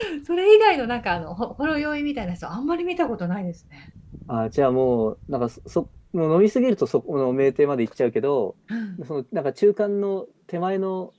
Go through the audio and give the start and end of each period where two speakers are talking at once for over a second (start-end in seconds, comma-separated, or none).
none